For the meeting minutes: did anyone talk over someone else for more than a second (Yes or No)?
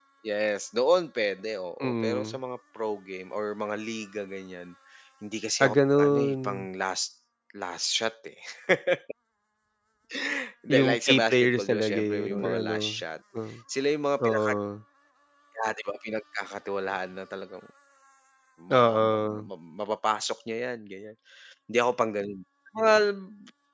Yes